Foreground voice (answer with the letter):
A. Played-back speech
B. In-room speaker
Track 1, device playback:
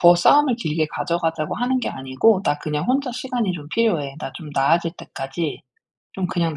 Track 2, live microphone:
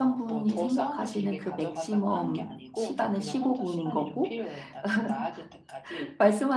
B